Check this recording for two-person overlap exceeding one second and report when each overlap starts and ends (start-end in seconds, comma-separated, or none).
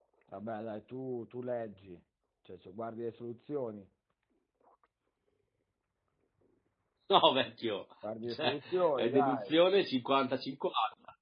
8.2-9.6